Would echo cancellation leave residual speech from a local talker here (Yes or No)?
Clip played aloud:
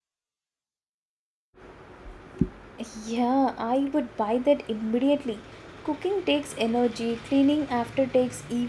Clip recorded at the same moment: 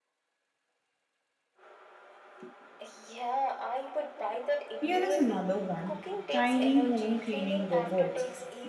Yes